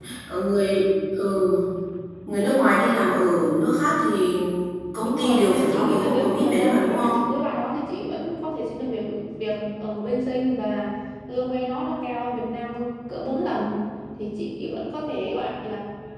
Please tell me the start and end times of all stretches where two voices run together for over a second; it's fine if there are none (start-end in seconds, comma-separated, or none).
5.0-7.2